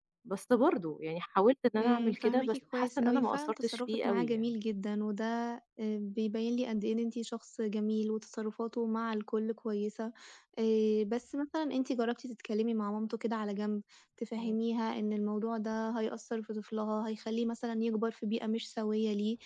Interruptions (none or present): present